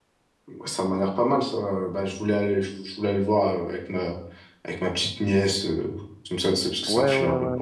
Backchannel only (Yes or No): No